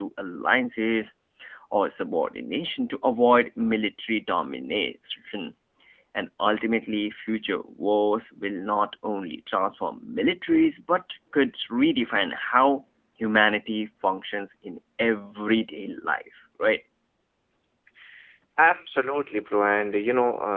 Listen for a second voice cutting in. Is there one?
No

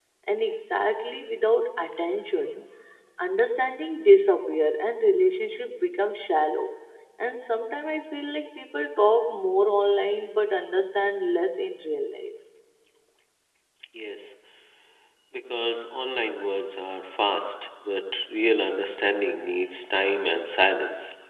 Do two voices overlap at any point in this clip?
No

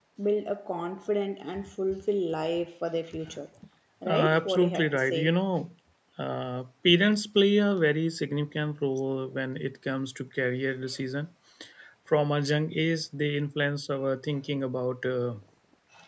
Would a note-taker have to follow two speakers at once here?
Yes, from 4.1 s

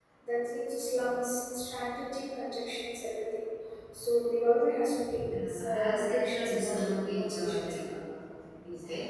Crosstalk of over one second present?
Yes, from 5.3 s

